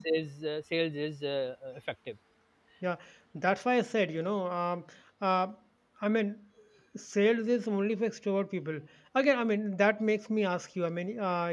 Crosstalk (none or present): none